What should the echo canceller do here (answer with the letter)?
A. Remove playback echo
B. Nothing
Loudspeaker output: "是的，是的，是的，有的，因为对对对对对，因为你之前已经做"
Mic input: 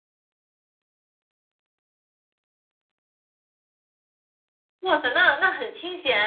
B